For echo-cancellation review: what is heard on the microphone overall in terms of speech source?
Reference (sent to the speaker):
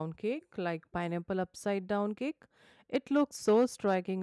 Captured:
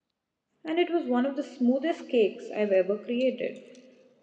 user only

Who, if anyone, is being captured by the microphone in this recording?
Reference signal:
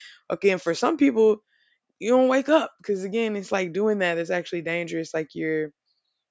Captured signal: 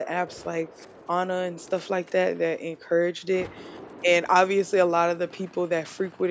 user only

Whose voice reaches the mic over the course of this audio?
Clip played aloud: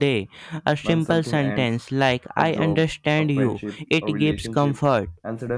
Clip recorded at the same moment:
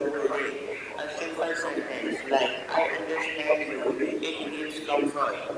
echo only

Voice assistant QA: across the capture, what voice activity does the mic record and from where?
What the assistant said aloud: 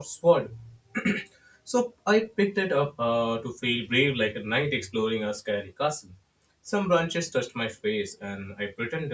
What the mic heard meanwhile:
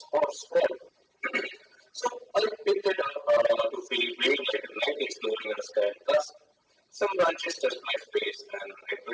echo only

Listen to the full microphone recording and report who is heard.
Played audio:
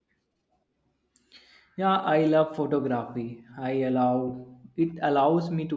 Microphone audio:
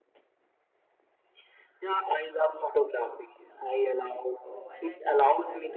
both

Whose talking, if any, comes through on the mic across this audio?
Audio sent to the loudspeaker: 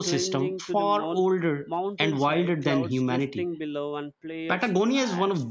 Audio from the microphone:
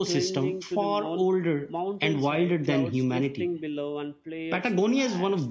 echo only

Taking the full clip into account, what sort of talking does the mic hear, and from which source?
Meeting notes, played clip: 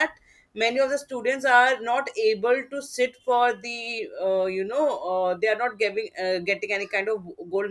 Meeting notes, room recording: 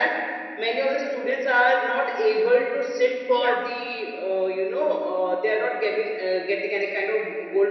both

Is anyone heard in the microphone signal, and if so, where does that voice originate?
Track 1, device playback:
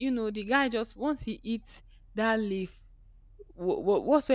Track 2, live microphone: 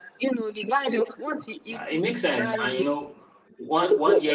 both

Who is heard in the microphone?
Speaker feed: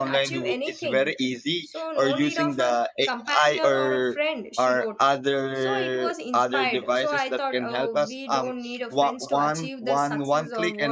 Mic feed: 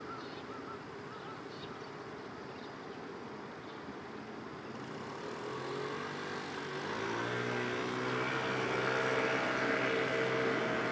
neither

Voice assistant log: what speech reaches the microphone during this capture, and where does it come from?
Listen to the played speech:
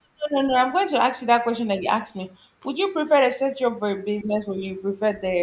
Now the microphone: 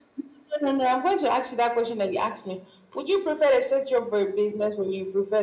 echo only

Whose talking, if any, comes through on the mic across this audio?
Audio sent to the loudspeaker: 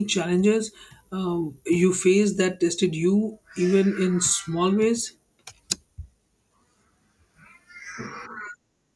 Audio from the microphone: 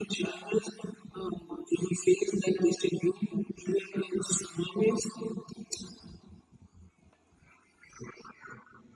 echo only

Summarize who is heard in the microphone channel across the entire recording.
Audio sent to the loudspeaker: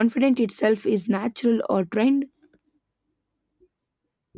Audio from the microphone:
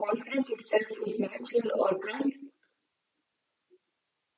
echo only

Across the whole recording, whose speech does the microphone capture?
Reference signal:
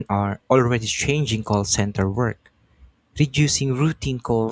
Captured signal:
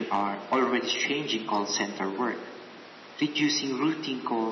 echo only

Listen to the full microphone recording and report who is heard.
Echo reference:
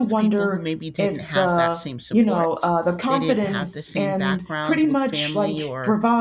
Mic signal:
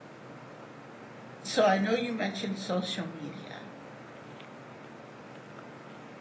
user only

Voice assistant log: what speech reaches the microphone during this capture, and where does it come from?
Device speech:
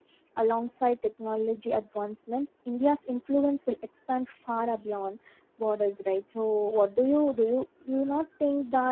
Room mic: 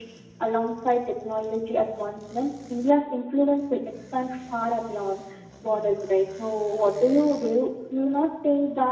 echo only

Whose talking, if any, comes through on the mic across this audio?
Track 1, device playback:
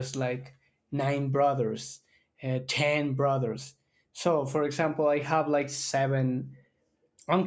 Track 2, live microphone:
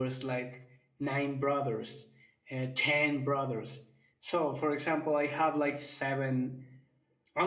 echo only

